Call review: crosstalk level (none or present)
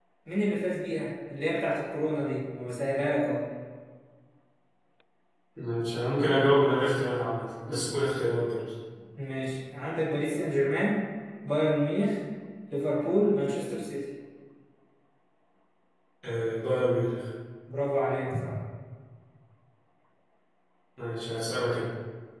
none